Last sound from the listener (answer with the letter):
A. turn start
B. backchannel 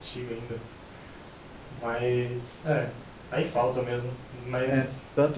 A